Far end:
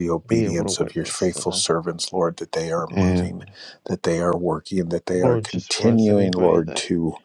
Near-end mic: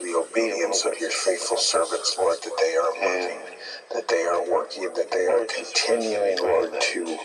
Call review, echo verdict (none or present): present